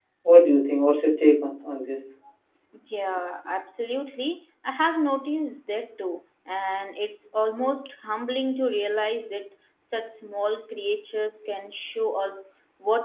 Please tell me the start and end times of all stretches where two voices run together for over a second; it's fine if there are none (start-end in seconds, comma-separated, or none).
none